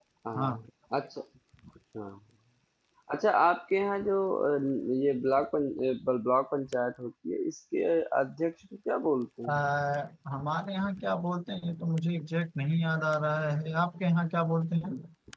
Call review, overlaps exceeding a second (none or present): none